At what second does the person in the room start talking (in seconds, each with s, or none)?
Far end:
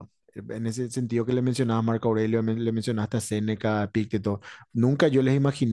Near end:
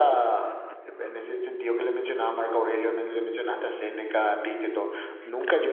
none